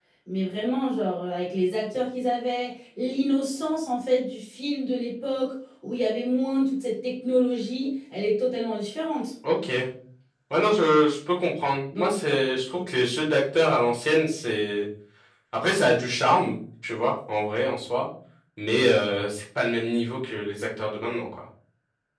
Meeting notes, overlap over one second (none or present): none